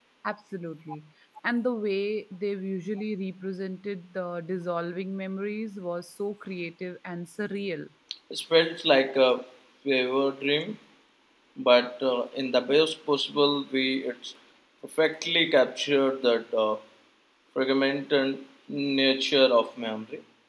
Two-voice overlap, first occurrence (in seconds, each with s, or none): none